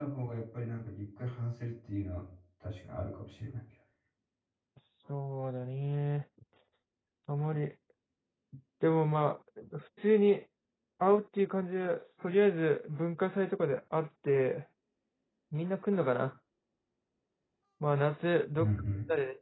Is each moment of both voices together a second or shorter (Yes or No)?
Yes